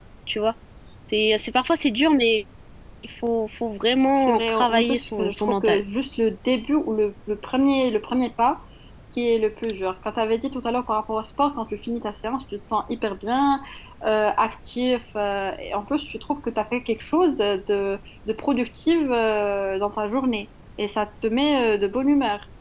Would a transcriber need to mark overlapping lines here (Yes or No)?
Yes